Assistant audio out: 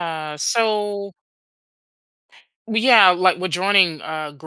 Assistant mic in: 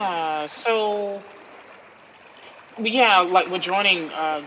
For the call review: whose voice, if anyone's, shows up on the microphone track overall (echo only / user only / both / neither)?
echo only